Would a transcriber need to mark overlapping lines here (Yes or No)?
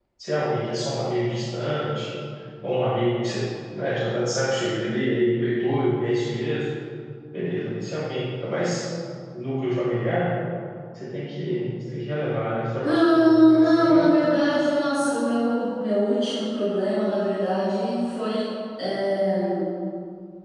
Yes